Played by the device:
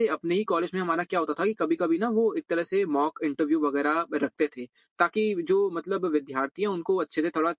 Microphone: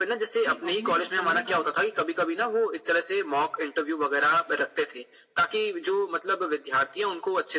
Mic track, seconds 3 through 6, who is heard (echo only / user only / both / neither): echo only